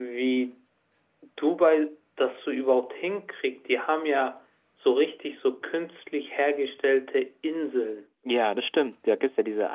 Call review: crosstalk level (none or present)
none